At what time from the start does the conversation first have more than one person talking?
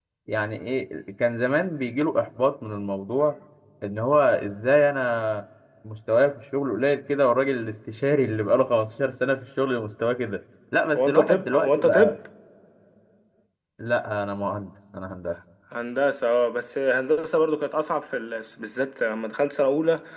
11.0 s

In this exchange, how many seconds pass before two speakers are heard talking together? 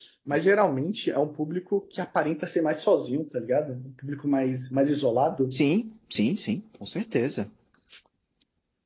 none

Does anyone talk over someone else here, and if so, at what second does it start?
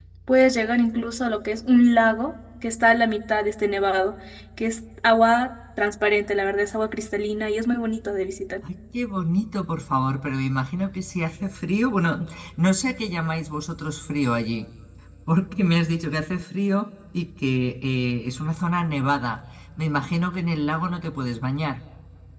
none

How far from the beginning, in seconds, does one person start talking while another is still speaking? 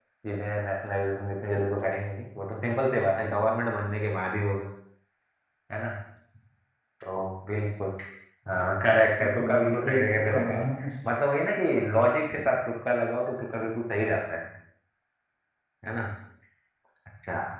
9.2 s

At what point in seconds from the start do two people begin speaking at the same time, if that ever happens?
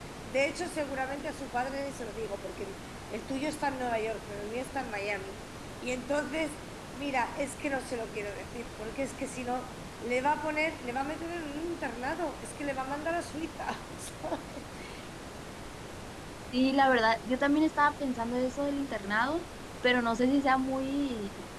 none

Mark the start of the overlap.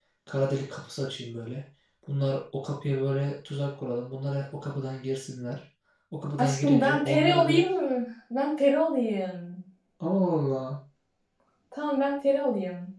6.4 s

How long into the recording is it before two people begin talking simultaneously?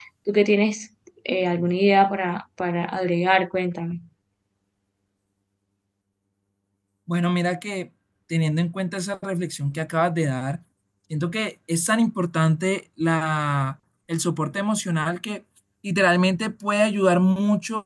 none

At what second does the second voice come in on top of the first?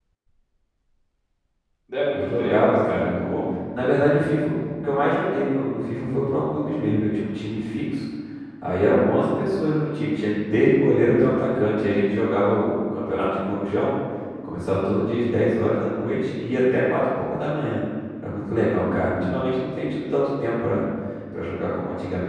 2.1 s

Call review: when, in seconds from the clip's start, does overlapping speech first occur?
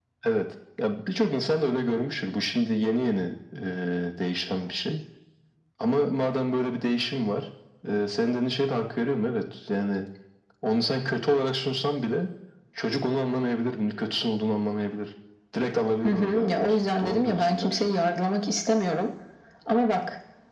16.0 s

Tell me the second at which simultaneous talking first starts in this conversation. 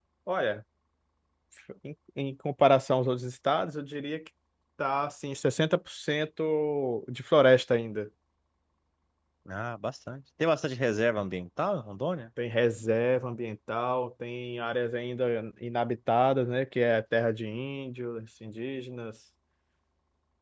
none

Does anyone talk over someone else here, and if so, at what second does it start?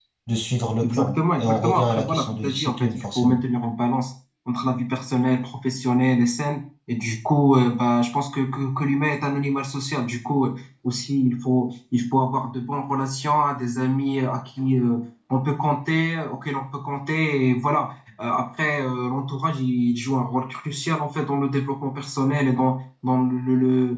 0.8 s

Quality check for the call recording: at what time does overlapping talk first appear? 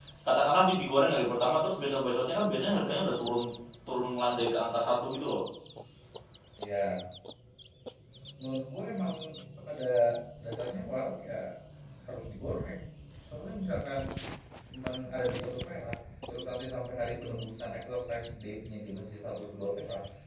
none

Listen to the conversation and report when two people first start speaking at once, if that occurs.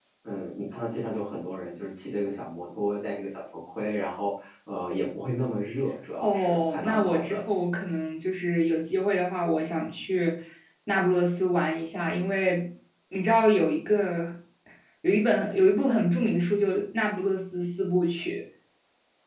6.1 s

